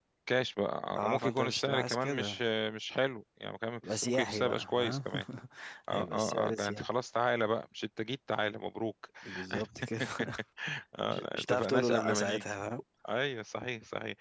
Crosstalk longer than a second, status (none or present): present